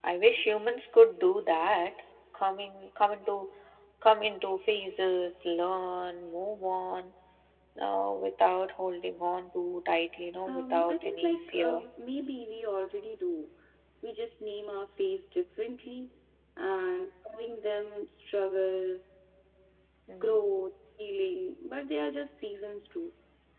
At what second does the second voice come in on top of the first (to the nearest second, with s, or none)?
10 s